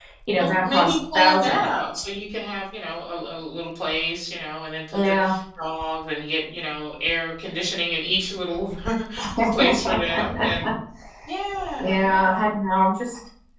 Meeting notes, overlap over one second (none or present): present